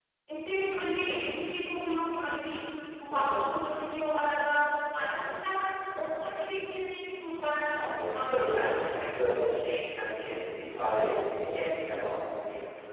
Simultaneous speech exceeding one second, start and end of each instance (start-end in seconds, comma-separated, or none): 7.8-9.0